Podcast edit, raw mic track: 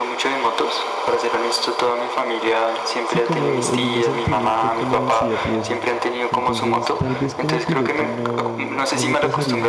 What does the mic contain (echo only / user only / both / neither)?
both